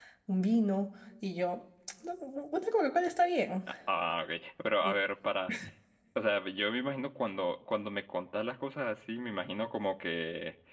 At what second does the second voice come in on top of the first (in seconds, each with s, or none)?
none